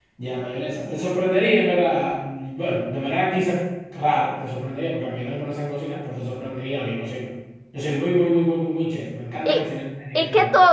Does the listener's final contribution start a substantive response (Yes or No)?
Yes